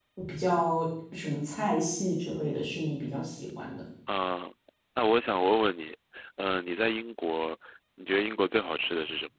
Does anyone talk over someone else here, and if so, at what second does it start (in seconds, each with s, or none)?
none